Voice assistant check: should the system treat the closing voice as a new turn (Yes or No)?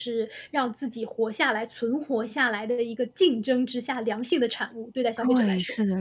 Yes